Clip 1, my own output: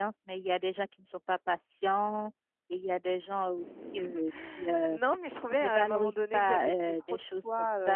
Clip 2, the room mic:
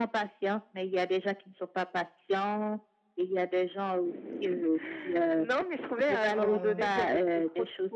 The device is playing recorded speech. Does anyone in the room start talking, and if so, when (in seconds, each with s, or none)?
6.3 s